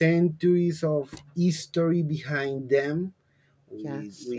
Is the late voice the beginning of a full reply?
No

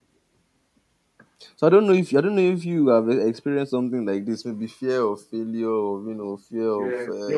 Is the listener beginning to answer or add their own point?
Yes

